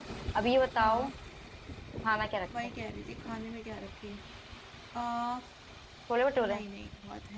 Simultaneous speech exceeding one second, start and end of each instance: none

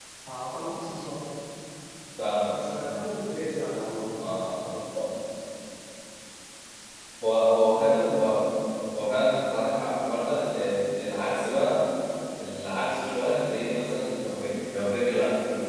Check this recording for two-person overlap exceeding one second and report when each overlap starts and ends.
none

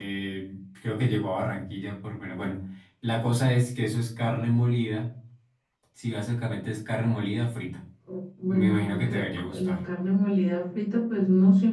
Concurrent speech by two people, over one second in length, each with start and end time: 8.5-9.8

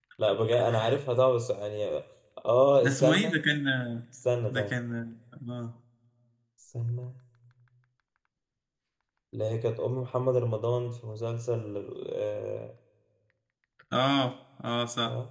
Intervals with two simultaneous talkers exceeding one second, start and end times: none

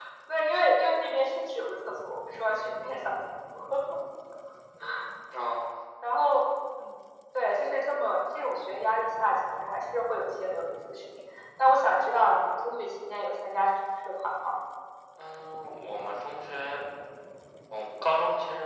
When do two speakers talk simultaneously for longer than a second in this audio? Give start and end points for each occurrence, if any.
none

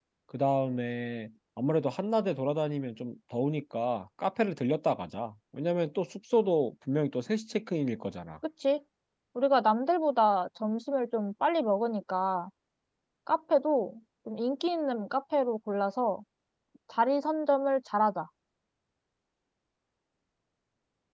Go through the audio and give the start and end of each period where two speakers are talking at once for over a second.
none

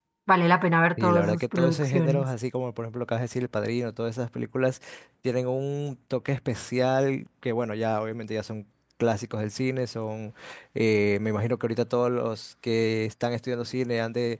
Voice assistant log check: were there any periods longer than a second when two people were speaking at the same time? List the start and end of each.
1.0-2.3

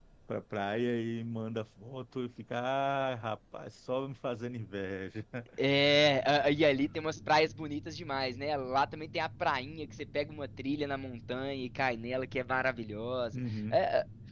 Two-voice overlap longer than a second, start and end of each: none

